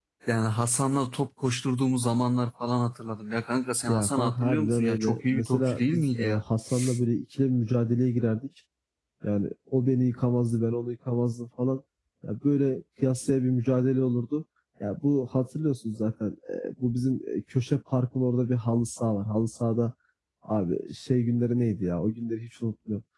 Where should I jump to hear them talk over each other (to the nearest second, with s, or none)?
4 s